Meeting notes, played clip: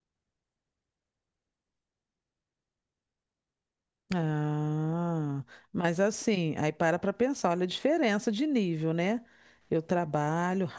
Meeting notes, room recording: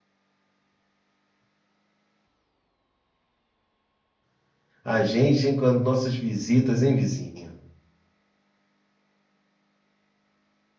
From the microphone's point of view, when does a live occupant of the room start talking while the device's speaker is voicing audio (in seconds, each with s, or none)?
4.8 s